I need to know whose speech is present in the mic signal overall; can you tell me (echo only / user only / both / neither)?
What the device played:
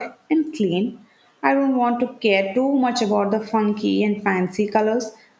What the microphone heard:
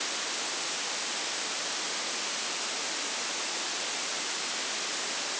neither